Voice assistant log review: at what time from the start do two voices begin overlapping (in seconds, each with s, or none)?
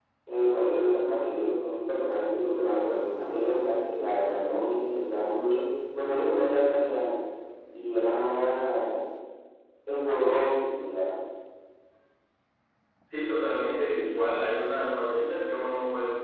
none